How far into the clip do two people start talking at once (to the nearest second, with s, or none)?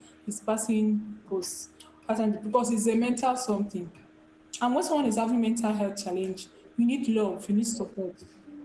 none